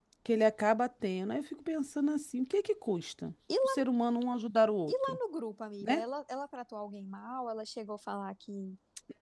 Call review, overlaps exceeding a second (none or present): none